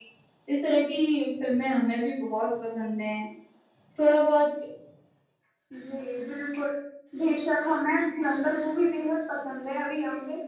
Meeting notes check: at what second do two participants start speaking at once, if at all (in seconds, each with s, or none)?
none